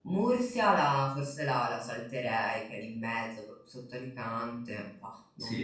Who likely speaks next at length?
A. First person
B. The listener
B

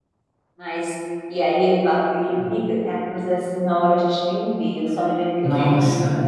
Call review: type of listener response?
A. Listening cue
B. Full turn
A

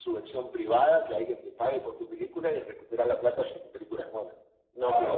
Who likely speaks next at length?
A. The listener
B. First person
A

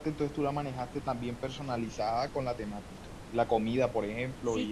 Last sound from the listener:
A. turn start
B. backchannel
A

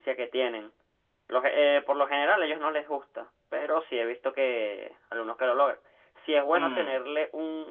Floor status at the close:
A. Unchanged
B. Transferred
A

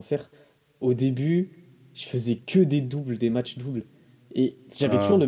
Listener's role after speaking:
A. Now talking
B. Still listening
B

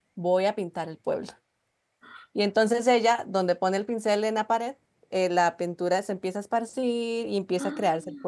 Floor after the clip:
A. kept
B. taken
A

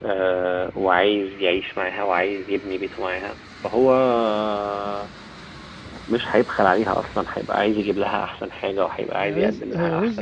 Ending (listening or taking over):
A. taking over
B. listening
A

